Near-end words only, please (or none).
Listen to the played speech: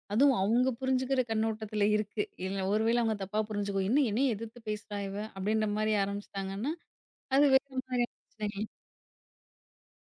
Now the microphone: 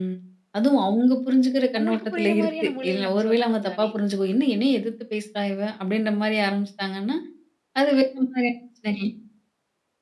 அவங்களுக்கு புரியிற மாரியான மொழியில நம்ம சொல்லணும் தானே?